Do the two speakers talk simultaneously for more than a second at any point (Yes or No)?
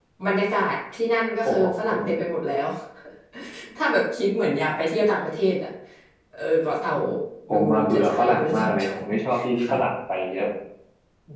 Yes